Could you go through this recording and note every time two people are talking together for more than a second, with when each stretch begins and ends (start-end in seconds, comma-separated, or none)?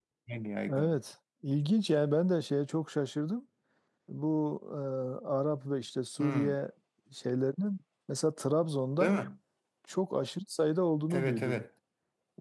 none